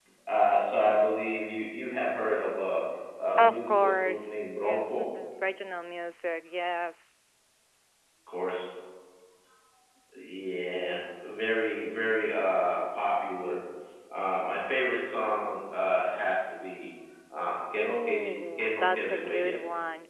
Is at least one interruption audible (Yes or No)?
Yes